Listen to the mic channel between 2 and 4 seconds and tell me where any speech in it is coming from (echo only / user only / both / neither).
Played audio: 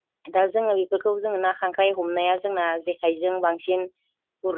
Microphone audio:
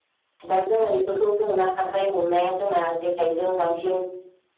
echo only